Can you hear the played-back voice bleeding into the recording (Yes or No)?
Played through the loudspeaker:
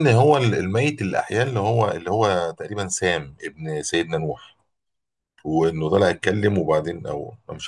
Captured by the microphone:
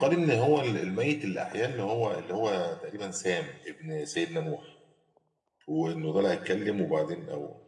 Yes